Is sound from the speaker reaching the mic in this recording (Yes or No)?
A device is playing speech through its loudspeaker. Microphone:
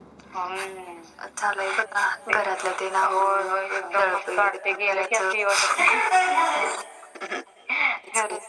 Yes